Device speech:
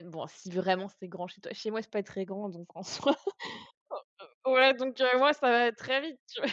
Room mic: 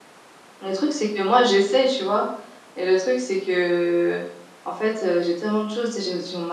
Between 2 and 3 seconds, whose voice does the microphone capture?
user only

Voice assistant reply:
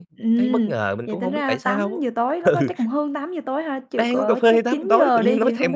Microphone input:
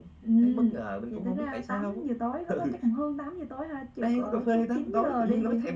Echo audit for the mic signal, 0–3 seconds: echo only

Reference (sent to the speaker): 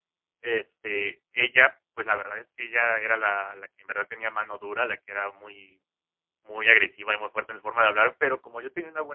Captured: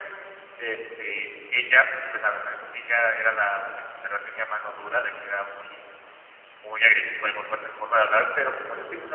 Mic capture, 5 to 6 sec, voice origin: echo only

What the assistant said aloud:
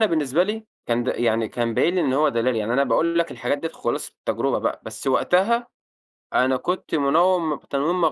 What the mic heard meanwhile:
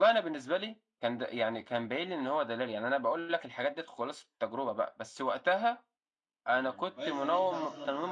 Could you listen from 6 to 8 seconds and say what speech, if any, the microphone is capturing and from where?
both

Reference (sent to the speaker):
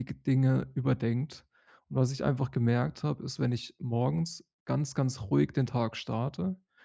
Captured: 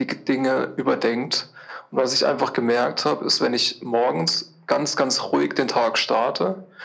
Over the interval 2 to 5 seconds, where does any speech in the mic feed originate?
echo only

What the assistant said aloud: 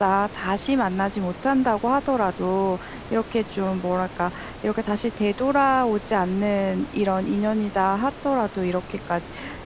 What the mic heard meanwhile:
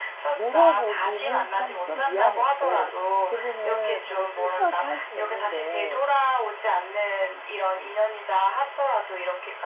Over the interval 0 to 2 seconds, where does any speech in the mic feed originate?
both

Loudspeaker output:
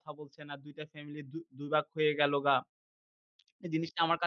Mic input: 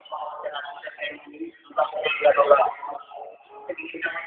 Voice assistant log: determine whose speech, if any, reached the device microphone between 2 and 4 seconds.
echo only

